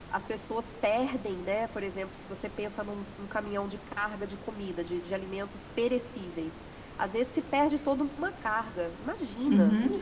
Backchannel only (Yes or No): No